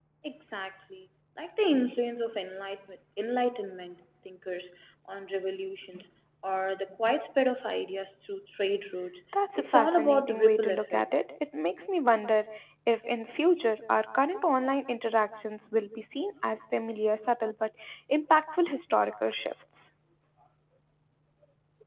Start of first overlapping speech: 9.3 s

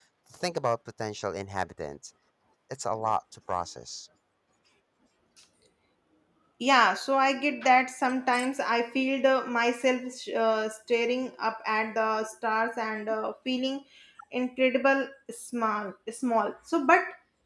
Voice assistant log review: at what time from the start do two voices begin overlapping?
none

